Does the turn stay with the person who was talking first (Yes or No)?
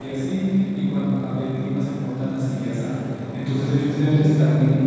Yes